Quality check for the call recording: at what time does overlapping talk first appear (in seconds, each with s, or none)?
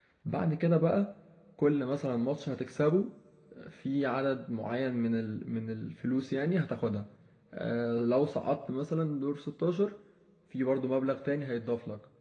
none